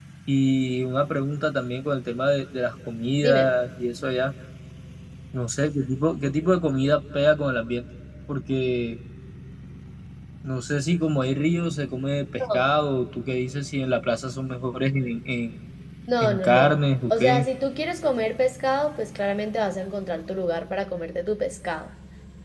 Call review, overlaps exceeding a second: present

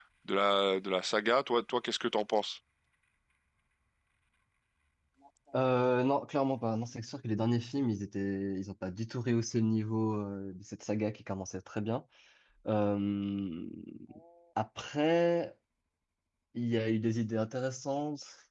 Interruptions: none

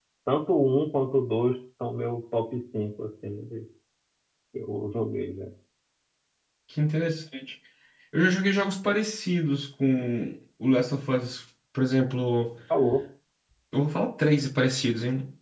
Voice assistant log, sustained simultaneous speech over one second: none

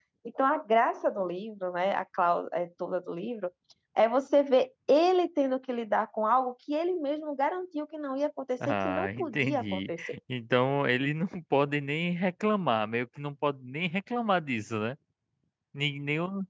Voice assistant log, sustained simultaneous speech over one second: present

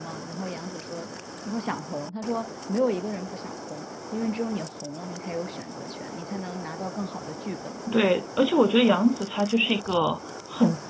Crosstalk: none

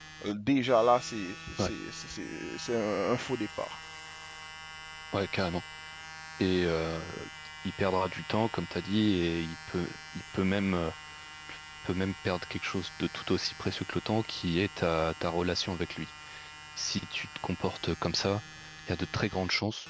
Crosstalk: none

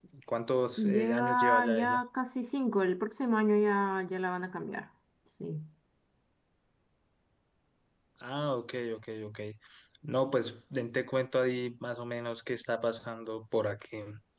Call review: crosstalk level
present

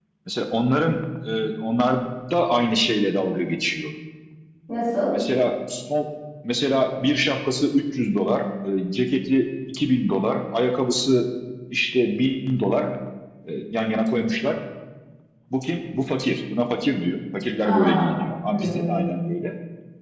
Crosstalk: present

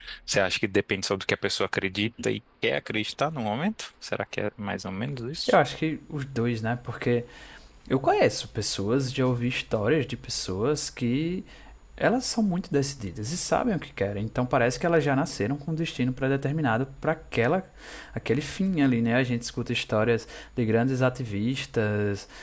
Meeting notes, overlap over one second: none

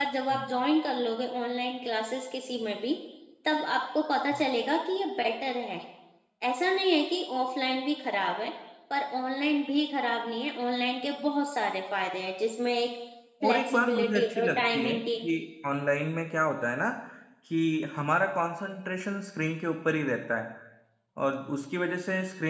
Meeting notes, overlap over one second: present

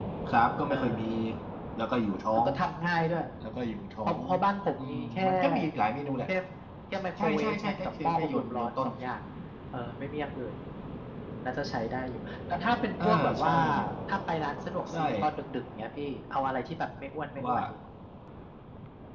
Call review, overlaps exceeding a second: present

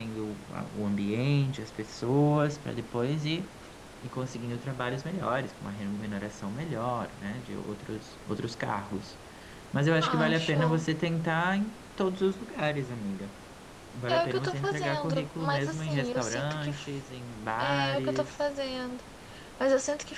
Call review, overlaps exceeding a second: present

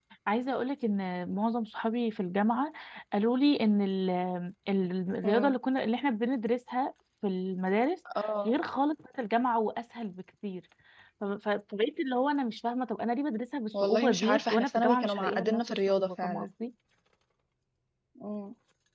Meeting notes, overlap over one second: present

